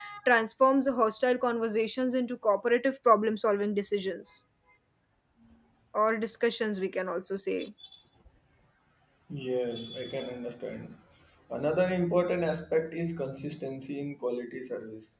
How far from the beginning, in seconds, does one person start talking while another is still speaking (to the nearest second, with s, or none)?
none